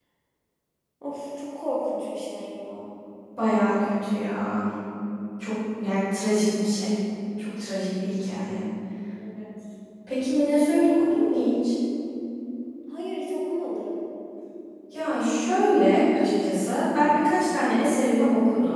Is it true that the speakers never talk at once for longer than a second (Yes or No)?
Yes